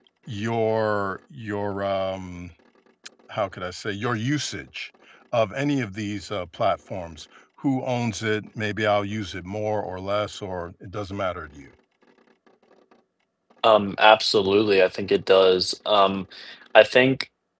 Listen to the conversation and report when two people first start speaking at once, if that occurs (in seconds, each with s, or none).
none